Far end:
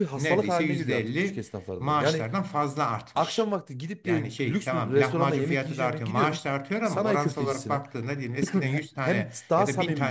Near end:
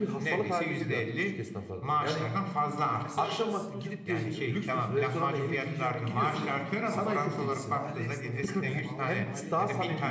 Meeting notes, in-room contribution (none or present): present